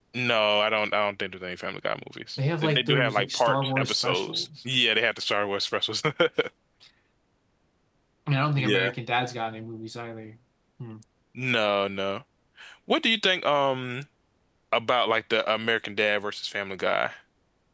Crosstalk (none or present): present